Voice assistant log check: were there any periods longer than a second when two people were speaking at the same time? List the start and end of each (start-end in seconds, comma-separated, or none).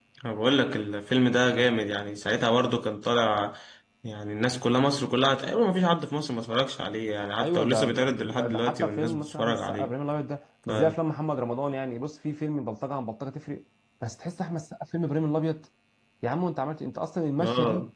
7.4-9.9